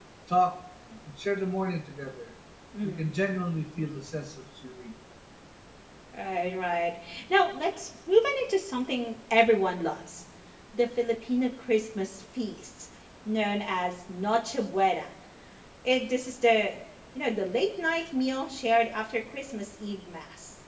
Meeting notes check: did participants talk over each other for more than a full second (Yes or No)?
No